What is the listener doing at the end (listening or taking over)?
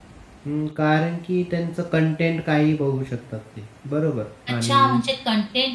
taking over